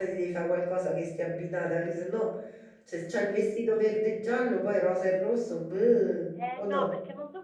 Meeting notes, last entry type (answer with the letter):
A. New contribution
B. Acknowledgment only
A